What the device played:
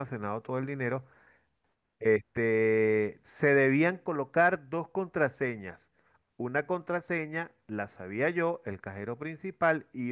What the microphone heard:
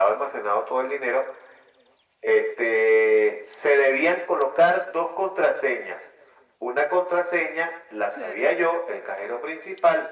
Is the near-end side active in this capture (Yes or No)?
Yes